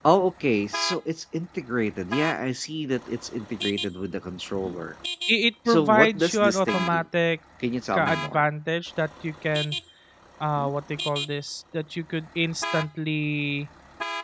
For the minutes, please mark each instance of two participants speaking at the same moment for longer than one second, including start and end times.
5.7-7.0

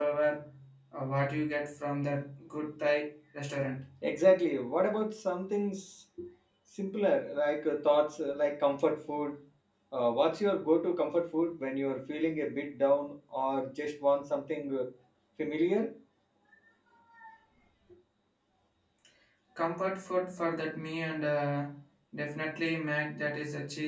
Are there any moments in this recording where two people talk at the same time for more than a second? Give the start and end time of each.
none

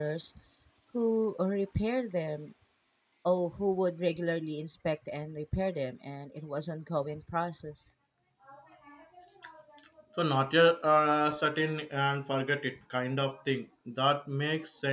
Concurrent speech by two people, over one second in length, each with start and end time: none

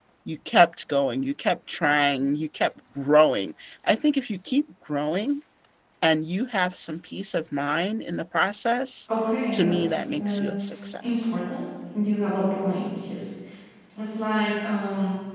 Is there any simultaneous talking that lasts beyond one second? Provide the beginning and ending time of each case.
9.5-11.4

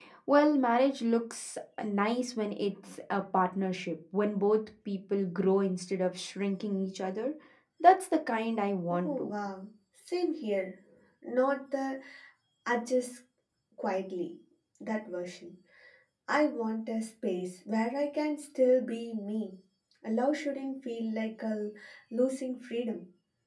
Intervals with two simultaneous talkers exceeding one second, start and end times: none

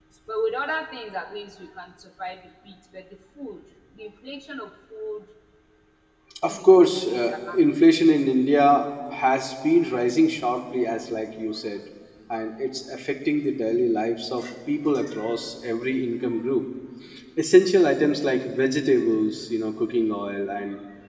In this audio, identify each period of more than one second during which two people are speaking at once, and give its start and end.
6.5-7.8

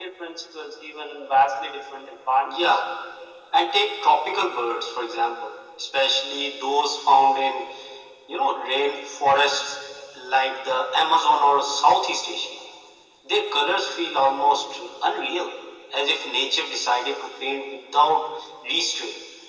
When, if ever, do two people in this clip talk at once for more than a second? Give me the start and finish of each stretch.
none

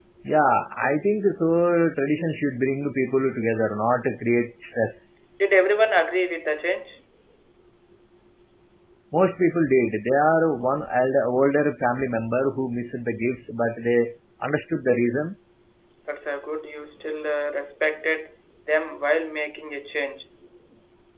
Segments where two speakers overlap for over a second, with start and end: none

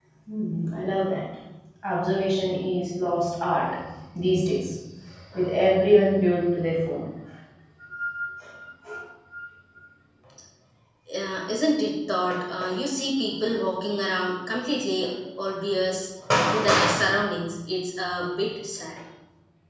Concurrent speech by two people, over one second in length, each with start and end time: none

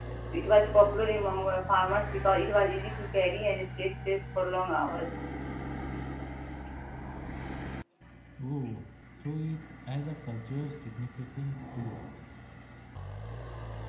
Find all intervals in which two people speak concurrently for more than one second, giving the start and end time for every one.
none

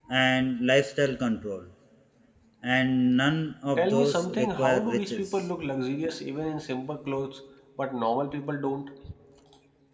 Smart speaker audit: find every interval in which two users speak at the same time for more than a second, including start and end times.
3.8-5.4

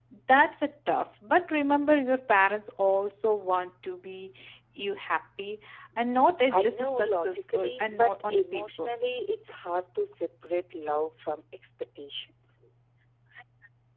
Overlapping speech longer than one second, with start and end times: 6.5-8.9

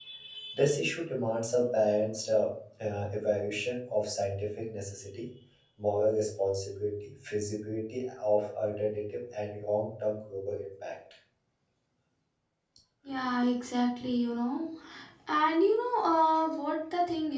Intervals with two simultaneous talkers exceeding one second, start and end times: none

